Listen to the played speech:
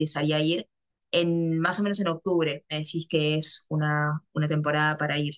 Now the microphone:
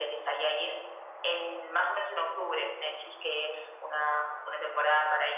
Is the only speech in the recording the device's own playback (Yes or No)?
Yes